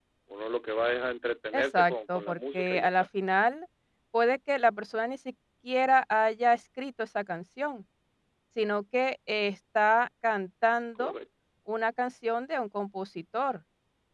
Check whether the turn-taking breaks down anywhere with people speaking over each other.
Yes, from 1.5 s

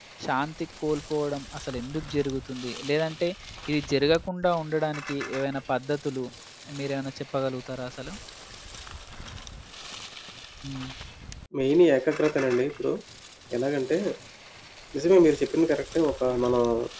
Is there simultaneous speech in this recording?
No

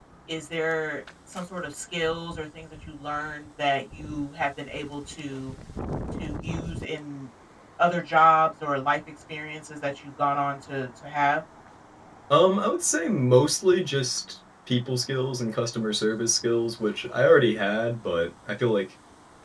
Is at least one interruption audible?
No

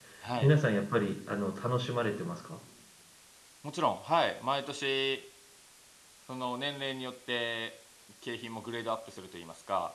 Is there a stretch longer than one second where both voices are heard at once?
No

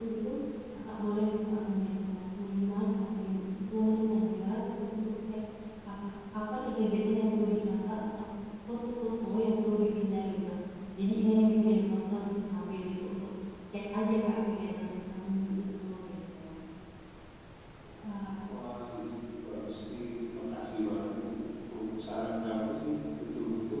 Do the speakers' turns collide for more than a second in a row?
No

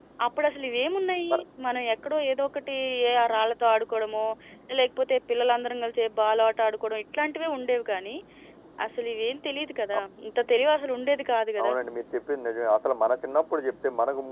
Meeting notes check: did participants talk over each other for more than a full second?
No

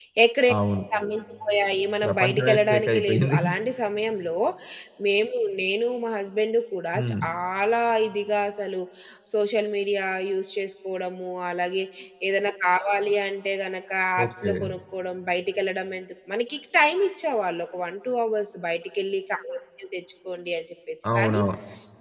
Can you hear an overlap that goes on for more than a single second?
Yes, from 2.0 s

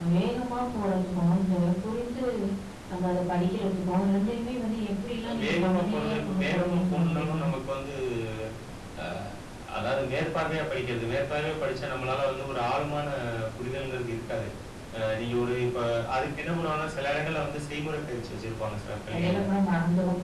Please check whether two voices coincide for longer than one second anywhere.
Yes, from 5.4 s

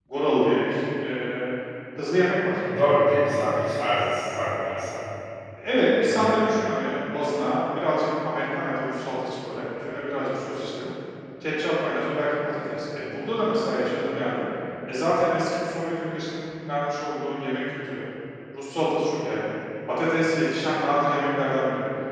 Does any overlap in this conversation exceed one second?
No

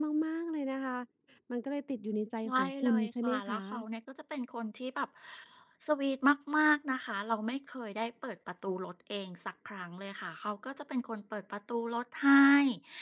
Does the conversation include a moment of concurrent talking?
Yes, from 2.4 s

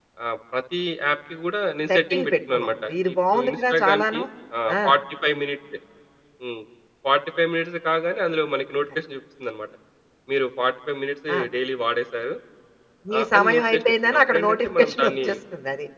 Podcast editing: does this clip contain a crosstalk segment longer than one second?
Yes, from 1.9 s

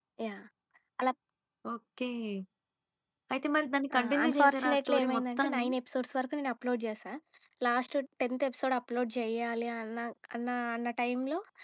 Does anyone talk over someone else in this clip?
Yes, from 4.0 s

